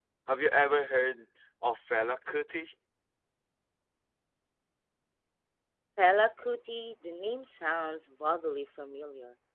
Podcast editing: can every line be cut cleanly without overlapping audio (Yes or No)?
Yes